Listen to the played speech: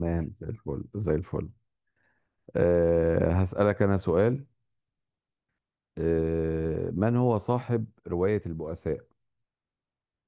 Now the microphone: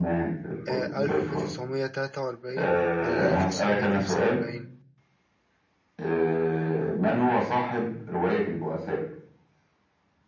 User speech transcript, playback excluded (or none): آه ألف تسعمية تلاتة وأربعين ولا ألف تسعمية خمسة وأربعين